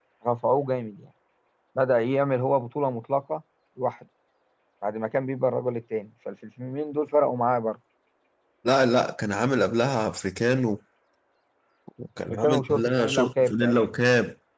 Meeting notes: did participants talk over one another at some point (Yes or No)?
Yes